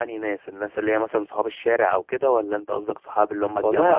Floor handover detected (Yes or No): Yes